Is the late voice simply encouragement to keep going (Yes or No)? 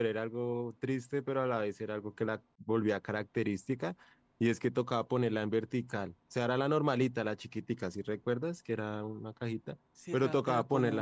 No